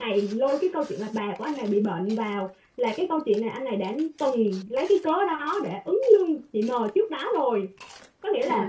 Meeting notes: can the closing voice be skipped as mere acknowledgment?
Yes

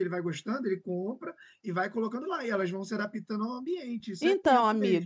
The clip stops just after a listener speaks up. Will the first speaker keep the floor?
No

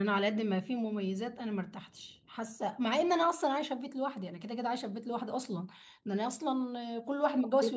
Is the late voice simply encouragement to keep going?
Yes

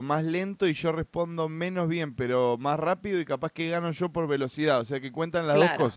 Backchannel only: No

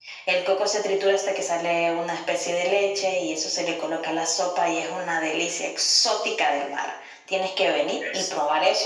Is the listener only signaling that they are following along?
Yes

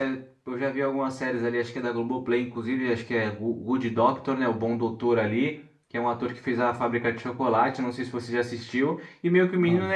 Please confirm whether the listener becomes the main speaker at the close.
No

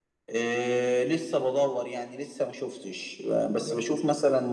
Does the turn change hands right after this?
No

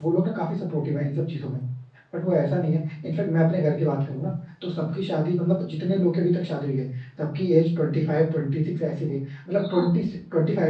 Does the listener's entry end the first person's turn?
No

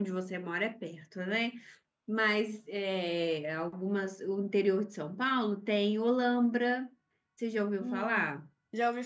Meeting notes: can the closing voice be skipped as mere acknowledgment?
No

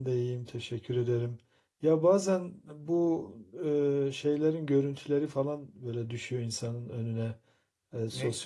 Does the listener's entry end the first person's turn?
No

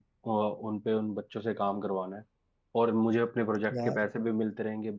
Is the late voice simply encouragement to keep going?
Yes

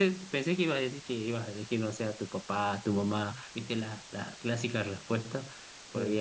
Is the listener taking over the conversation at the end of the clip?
No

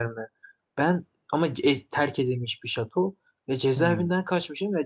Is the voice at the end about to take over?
No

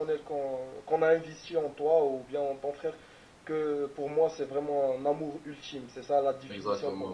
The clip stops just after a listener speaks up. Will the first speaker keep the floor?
No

